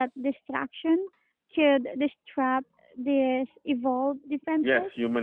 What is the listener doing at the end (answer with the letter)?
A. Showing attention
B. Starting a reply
B